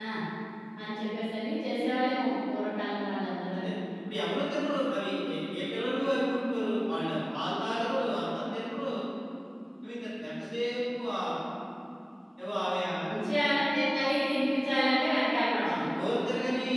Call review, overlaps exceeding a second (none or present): none